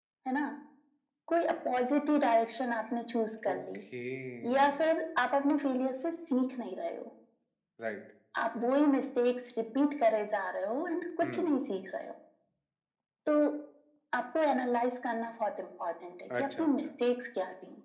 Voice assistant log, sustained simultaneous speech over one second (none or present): none